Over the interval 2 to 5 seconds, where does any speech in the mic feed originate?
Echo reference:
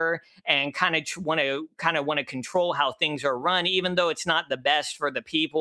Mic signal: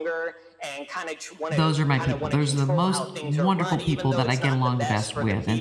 both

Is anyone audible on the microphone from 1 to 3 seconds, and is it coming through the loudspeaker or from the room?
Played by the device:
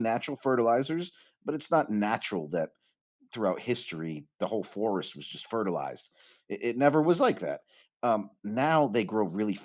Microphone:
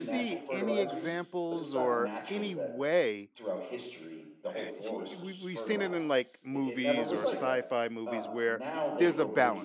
both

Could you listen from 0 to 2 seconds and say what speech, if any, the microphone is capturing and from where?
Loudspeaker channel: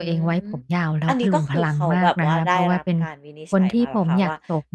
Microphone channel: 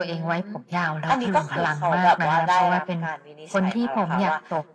echo only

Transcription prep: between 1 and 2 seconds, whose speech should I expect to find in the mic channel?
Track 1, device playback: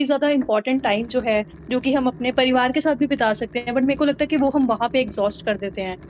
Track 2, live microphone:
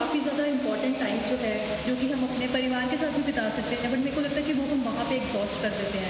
echo only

